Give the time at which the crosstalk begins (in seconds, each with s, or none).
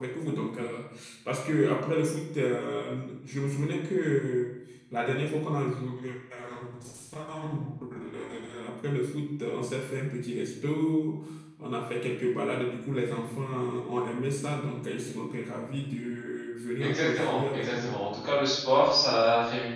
16.8 s